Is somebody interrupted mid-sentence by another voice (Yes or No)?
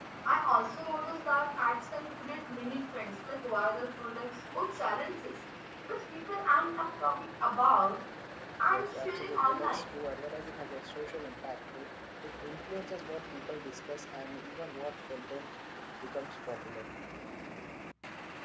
Yes